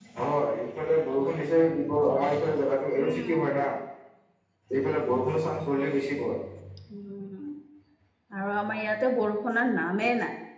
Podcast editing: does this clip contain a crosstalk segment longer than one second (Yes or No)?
No